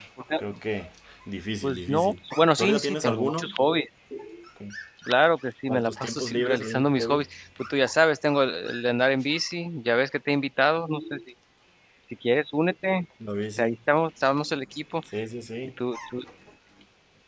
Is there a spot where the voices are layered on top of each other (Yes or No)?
Yes